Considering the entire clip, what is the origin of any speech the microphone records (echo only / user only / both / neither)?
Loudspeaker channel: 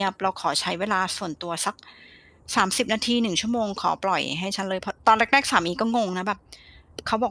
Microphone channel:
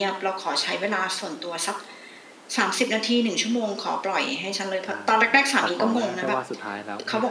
both